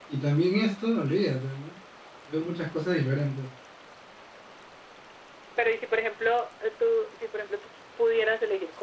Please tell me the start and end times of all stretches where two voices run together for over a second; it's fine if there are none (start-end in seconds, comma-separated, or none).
none